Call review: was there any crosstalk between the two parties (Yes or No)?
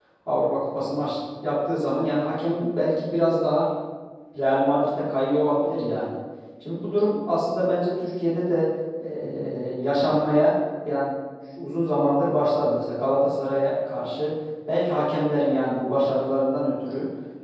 No